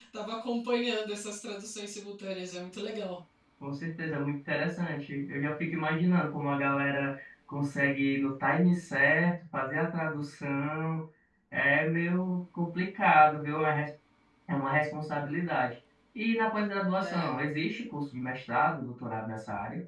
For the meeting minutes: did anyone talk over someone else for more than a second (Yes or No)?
No